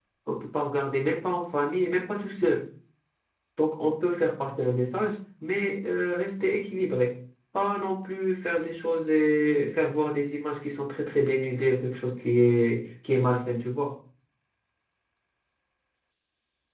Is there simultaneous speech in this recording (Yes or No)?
No